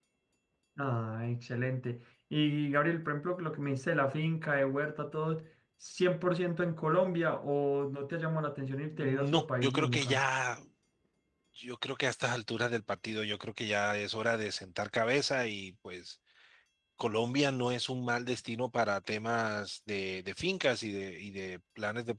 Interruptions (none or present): present